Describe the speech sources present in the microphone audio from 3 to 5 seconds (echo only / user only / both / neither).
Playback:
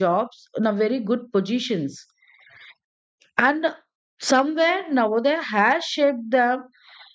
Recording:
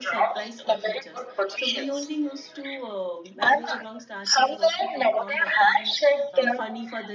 both